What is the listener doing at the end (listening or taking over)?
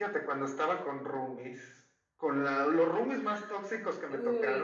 listening